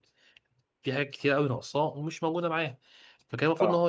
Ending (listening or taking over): listening